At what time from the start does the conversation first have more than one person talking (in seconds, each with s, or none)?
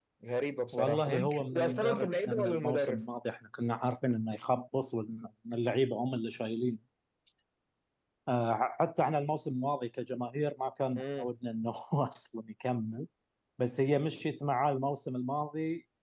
0.7 s